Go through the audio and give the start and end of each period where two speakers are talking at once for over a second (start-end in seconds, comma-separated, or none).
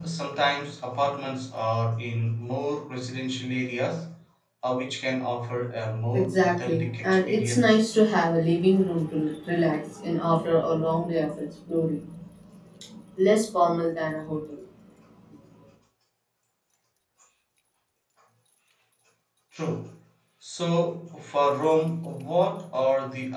6.1-7.7